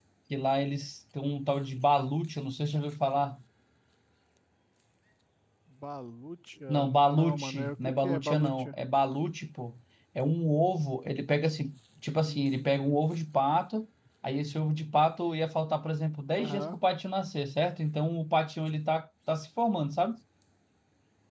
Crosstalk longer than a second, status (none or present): present